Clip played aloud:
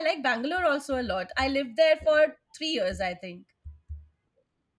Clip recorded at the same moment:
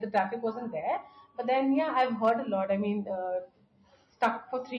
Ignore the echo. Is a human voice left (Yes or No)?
Yes